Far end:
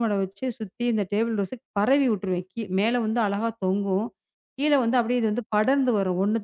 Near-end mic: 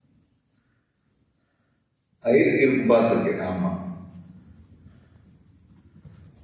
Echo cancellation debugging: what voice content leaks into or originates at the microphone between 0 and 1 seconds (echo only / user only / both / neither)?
neither